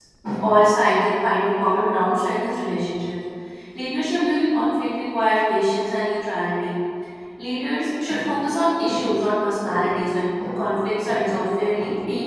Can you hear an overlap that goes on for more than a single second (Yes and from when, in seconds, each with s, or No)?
No